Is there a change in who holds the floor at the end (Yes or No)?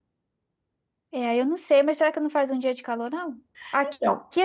No